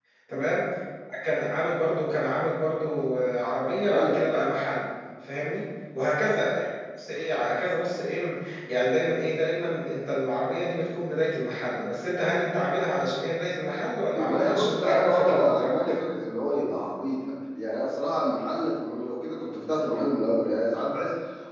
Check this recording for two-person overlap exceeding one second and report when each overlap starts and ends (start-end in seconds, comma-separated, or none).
14.1-15.8